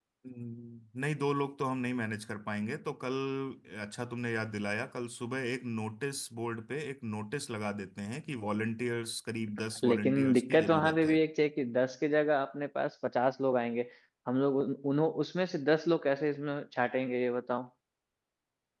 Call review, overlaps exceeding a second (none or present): present